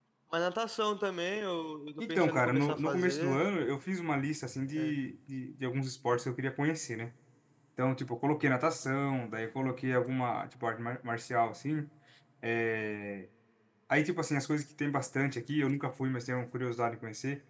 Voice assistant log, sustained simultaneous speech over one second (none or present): present